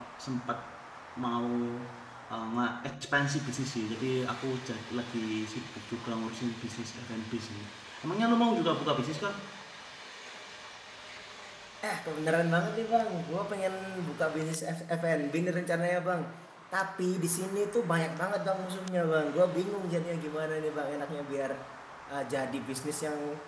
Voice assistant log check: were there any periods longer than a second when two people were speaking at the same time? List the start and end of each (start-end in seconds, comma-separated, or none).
none